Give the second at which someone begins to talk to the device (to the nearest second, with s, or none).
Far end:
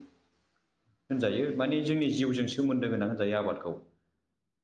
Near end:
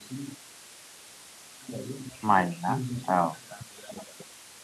2 s